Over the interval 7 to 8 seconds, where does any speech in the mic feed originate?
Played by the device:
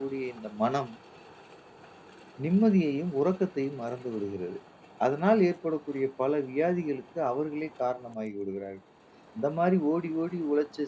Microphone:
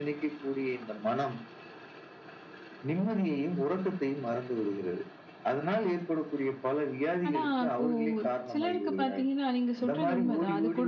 both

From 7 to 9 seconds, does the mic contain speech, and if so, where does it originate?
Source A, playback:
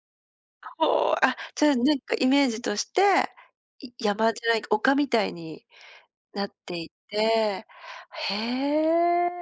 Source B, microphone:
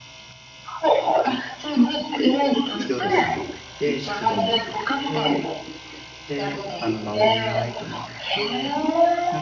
both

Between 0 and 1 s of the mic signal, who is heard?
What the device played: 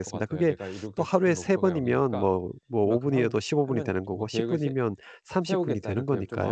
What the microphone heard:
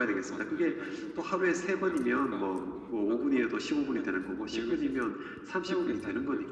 echo only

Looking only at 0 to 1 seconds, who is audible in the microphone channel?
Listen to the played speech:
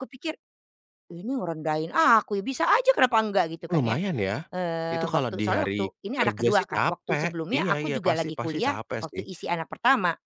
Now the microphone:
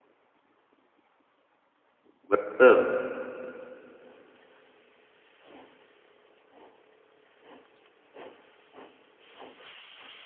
neither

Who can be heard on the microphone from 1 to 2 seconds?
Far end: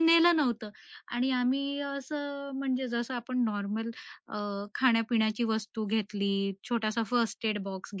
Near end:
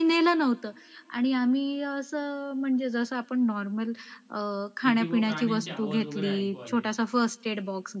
echo only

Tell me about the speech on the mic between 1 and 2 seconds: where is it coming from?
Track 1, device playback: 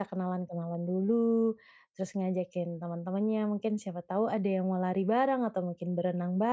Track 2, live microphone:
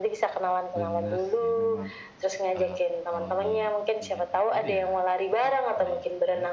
both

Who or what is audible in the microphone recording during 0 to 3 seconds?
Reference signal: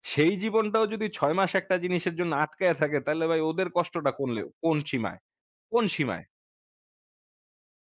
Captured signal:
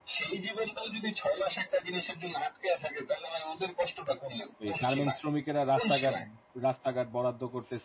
echo only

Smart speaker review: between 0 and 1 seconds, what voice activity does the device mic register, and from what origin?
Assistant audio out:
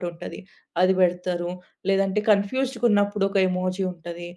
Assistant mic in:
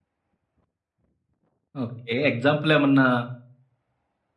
neither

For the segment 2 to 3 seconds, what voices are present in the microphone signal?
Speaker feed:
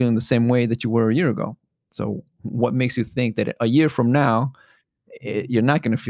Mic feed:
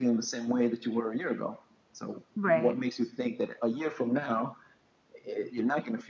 both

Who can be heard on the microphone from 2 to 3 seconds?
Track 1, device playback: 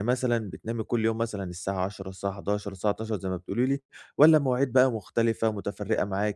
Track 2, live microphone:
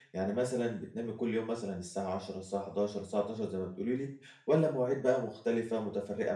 echo only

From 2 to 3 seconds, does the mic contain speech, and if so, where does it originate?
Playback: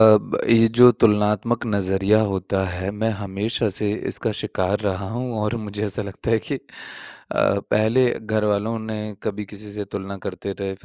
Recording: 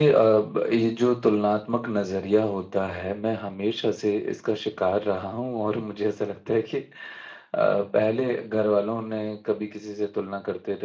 echo only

